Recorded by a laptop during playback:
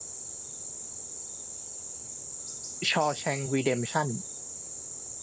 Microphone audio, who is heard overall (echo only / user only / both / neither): user only